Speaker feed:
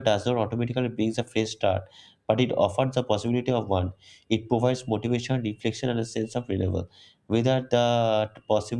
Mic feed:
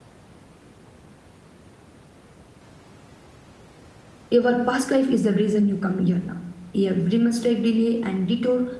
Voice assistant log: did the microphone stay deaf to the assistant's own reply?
Yes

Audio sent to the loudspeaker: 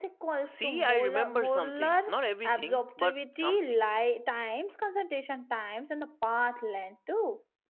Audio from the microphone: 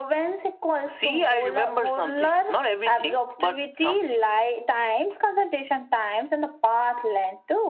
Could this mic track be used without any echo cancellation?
No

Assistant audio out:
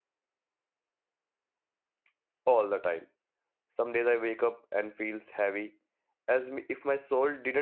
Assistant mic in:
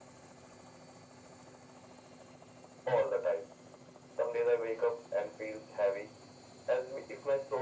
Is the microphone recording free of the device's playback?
No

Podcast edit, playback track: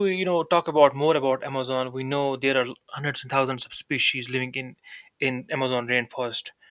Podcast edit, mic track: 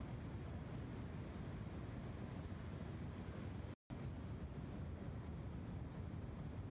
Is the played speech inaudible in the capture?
Yes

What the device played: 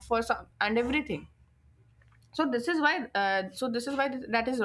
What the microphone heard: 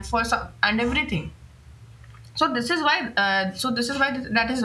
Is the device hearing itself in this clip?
Yes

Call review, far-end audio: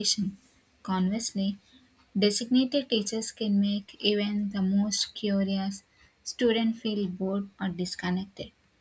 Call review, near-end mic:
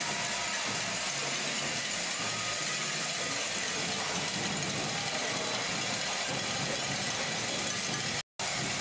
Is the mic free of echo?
Yes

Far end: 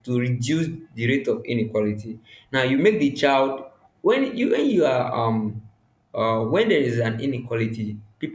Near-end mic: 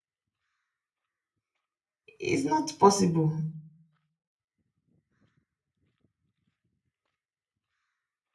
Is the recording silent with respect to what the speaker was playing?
Yes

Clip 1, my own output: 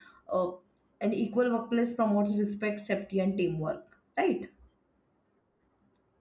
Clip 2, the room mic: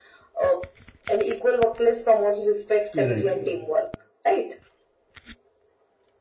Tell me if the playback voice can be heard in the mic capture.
Yes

